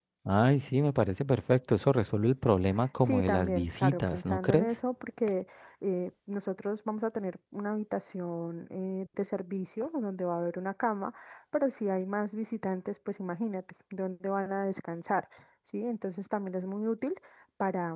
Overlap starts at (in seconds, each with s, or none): 2.8 s